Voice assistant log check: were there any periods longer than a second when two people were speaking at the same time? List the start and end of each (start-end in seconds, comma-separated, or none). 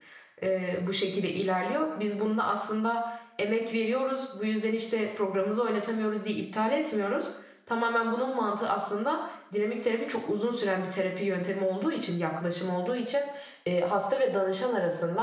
none